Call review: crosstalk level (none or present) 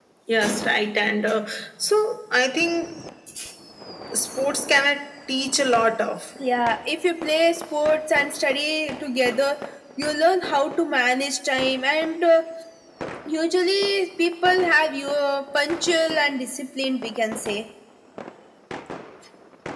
none